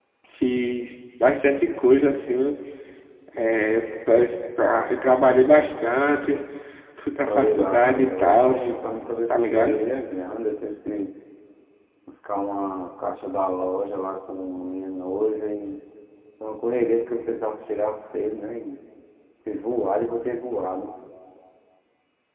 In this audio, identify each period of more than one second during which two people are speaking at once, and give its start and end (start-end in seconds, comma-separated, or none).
7.2-8.6